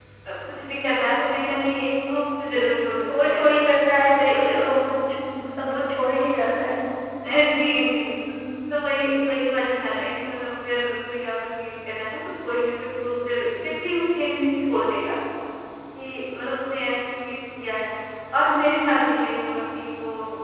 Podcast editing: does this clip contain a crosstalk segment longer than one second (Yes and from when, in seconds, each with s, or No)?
No